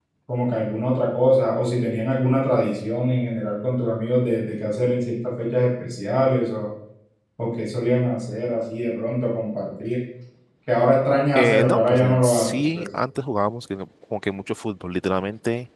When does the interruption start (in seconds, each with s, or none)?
11.3 s